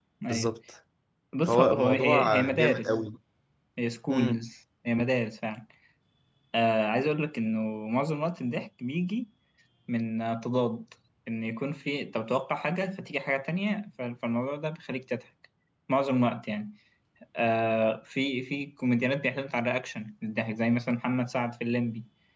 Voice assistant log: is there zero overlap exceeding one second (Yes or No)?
No